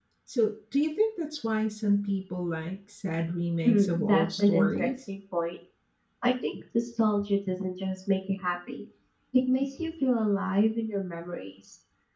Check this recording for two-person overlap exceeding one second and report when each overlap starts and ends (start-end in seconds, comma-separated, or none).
3.6-4.9